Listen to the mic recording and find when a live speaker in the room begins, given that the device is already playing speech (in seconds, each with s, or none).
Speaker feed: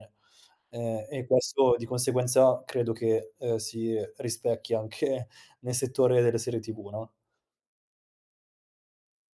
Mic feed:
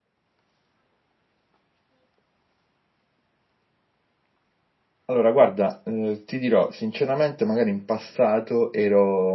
5.1 s